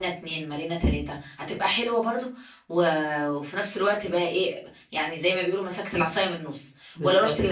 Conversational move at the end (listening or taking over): listening